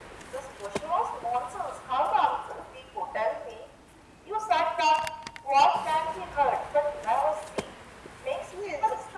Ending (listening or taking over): listening